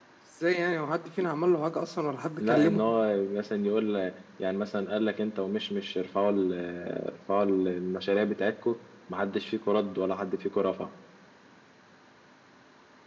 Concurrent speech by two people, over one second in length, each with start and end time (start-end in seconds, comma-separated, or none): none